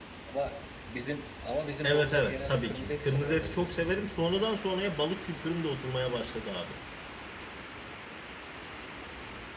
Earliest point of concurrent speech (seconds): 1.8 s

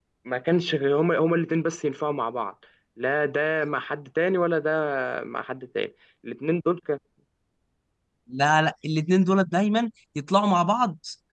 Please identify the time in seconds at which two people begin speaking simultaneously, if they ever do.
none

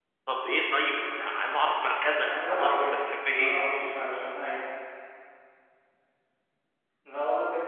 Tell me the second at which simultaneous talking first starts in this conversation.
2.2 s

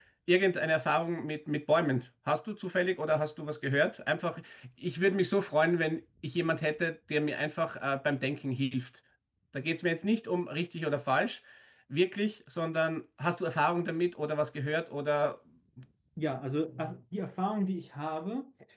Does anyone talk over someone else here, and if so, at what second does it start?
none

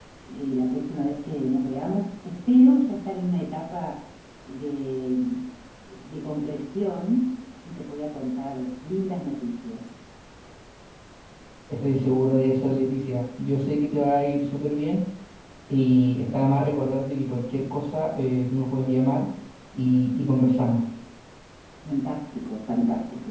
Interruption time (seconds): none

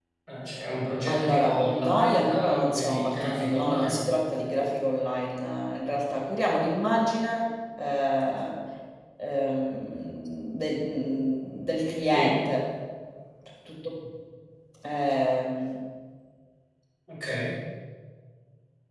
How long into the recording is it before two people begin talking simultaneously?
1.1 s

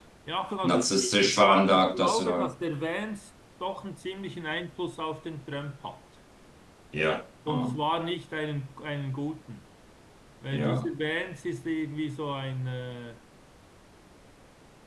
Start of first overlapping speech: 0.6 s

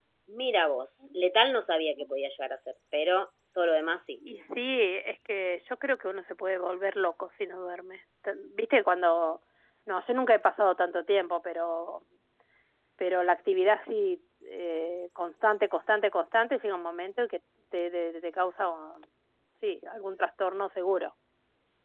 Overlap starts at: none

